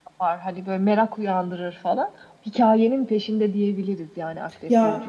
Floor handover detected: Yes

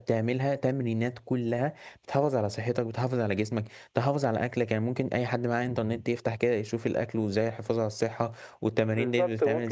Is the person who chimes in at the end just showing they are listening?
No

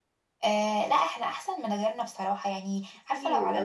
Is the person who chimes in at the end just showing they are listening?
Yes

